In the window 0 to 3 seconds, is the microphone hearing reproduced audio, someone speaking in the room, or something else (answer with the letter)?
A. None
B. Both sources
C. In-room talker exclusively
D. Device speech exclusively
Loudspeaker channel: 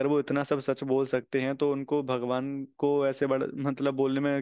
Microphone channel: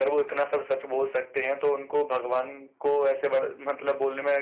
D